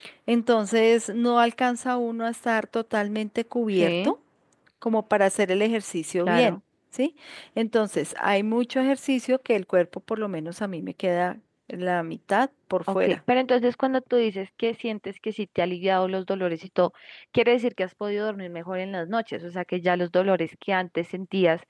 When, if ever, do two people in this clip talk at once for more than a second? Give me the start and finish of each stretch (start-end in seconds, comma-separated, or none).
none